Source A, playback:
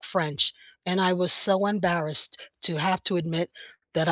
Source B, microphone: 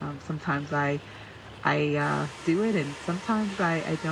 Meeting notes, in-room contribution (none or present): present